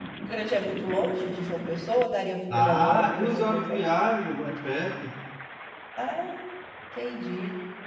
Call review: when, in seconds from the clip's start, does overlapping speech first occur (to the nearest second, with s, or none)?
3 s